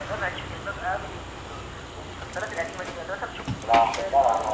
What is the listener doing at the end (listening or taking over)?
taking over